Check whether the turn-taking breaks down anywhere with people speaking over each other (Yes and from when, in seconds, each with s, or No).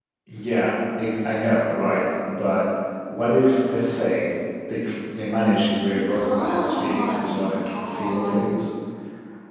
Yes, from 5.9 s